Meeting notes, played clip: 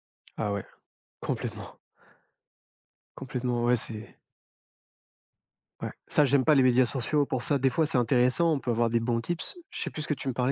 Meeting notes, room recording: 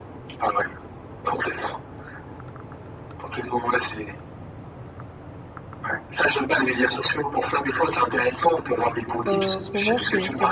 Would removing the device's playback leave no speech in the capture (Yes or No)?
No